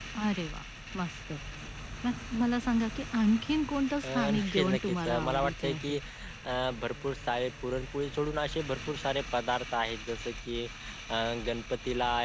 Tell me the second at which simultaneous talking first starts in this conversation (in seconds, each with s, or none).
4.0 s